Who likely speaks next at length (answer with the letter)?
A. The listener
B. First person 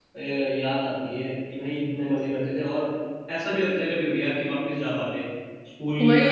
A